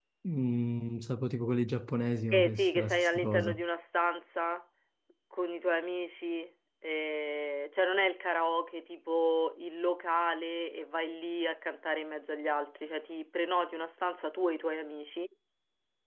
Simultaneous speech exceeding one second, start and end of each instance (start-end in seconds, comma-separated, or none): 2.3-3.6